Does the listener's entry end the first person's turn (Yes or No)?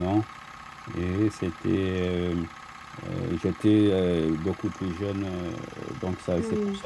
No